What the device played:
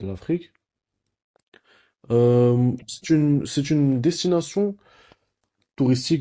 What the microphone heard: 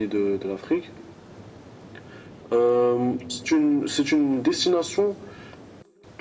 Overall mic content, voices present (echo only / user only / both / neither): echo only